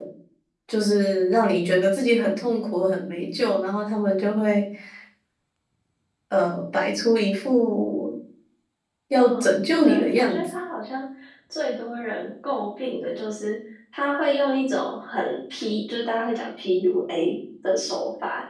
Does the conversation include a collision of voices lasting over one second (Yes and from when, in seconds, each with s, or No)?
Yes, from 9.1 s